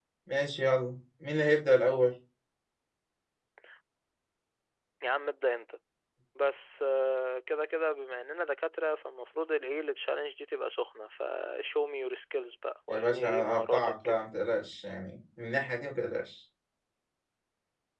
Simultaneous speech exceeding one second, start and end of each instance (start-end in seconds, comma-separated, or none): 12.9-14.2